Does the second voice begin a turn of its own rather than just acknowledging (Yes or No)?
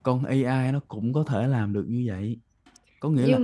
No